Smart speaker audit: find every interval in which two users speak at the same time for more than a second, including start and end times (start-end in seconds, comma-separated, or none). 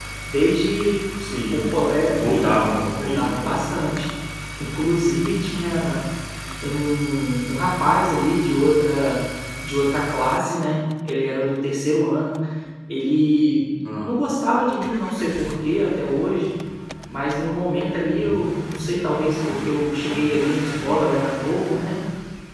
none